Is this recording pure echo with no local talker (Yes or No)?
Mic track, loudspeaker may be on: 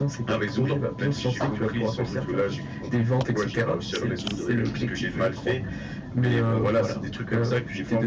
Yes